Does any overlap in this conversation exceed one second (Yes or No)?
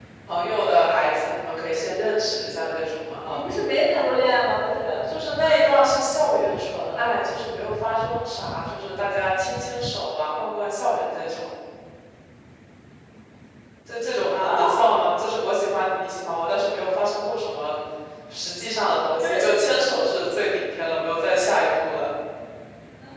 No